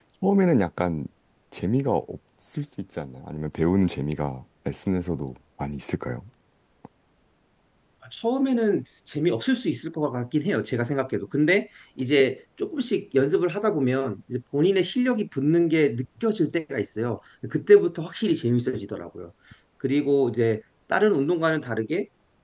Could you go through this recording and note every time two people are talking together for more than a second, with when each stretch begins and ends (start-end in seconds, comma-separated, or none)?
none